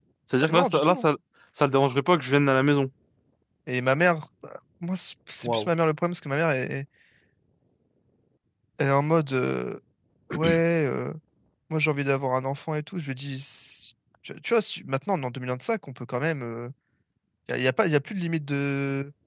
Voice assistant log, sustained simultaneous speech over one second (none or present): none